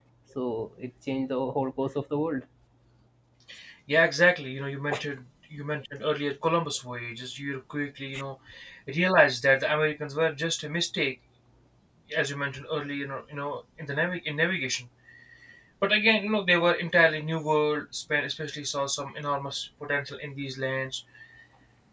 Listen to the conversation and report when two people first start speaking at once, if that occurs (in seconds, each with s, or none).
none